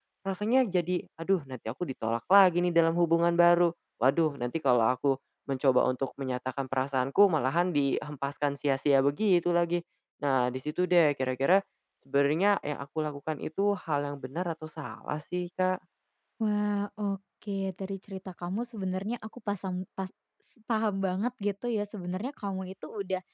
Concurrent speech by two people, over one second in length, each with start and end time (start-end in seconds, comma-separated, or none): none